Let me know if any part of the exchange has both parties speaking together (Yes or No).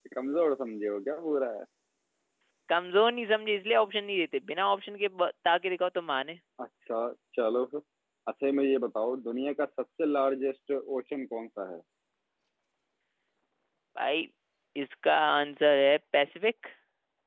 No